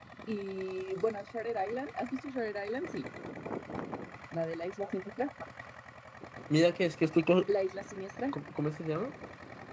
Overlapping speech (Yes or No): No